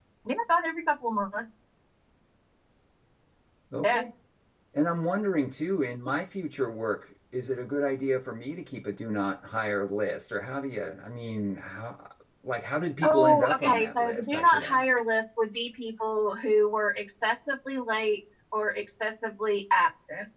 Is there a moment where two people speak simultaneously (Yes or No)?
Yes